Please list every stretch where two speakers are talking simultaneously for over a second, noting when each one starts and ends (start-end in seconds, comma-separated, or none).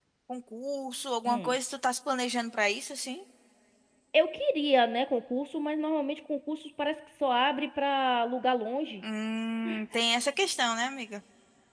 none